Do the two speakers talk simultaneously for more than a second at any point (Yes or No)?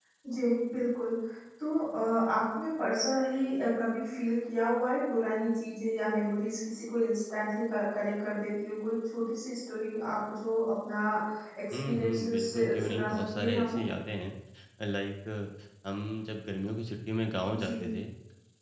Yes